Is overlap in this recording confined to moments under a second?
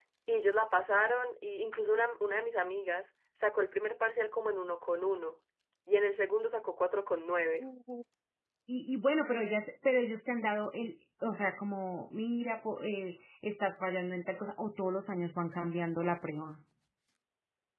Yes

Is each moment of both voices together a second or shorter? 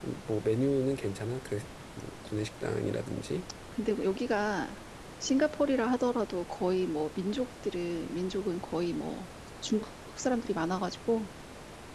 Yes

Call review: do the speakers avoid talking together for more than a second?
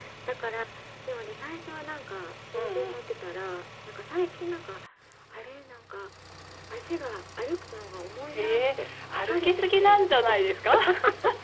No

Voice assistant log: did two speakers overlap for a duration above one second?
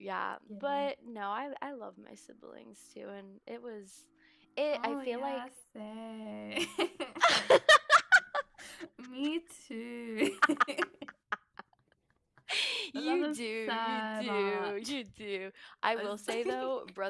Yes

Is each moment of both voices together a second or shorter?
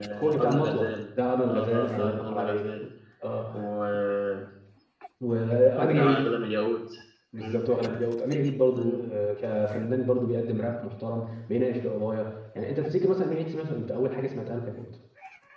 No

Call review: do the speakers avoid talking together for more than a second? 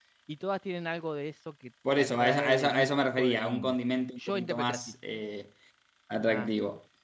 No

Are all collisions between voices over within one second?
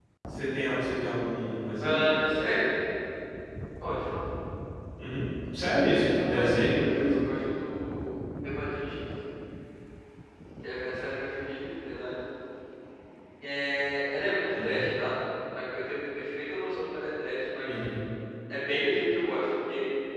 No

